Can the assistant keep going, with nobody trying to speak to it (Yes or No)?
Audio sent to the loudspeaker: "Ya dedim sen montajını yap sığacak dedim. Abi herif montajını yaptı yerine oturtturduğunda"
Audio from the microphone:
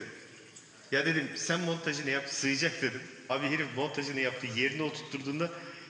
Yes